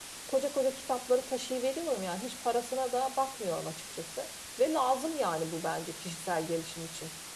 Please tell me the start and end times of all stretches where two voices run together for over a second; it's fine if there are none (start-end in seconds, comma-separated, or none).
none